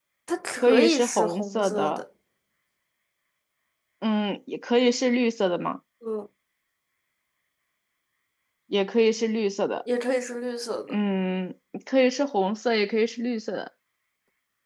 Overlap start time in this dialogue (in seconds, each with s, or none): 0.6 s